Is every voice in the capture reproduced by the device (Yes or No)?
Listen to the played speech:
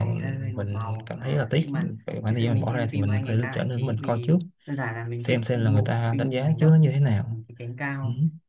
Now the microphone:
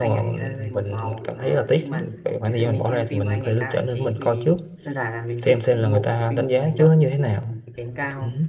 Yes